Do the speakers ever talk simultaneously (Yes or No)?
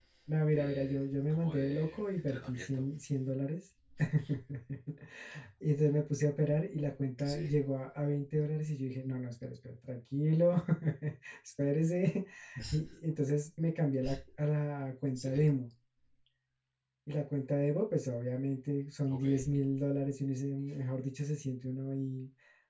Yes